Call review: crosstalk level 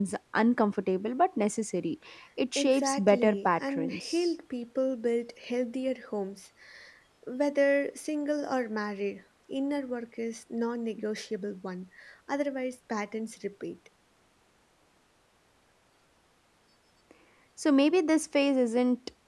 present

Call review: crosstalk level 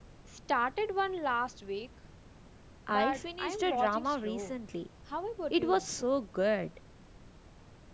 present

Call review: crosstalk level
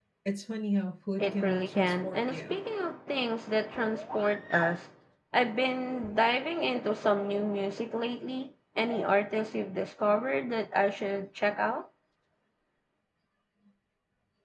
present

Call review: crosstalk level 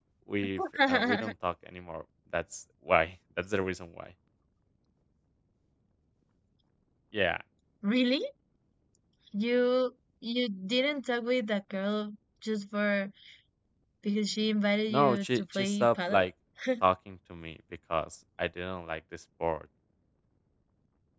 present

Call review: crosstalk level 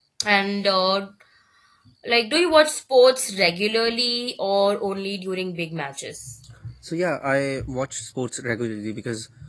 none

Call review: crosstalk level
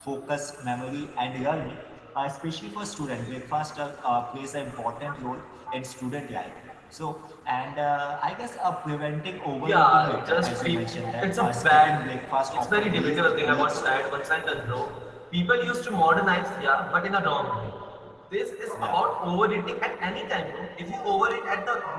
present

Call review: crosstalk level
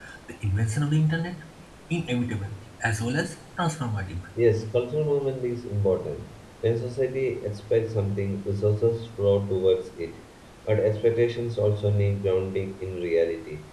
none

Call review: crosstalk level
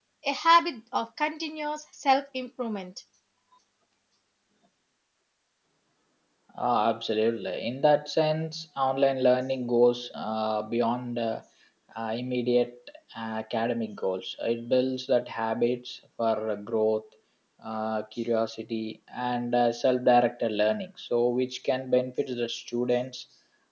none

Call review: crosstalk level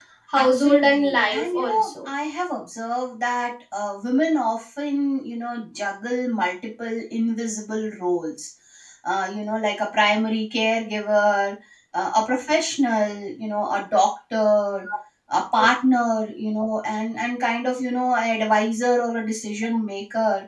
present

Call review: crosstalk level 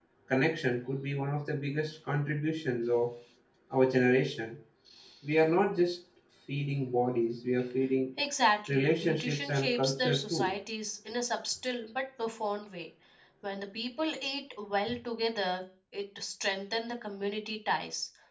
present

